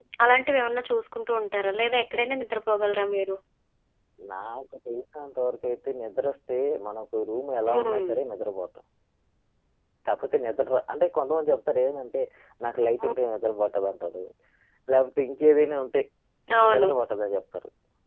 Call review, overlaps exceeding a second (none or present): none